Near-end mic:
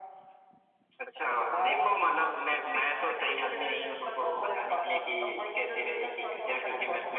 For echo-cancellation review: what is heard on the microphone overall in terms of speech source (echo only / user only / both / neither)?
echo only